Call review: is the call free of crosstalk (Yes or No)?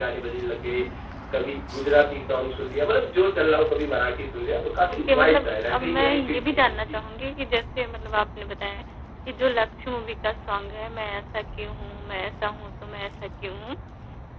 No